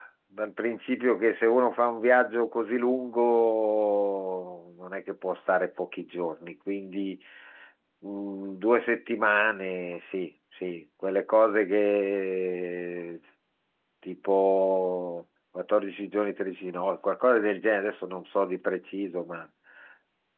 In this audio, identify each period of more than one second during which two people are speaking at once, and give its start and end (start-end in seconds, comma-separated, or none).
none